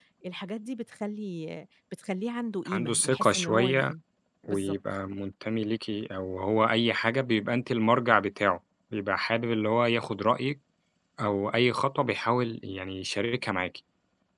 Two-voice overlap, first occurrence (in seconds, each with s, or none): 2.7 s